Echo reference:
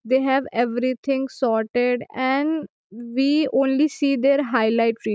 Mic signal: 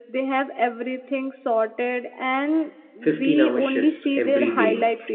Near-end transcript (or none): 15 hour shifts every day.